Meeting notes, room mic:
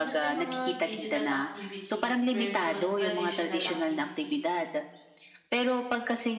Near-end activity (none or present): present